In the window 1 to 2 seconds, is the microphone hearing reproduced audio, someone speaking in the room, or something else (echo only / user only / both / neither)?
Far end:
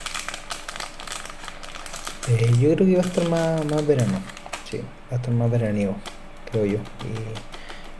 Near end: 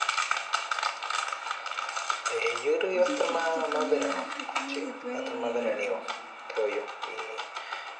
neither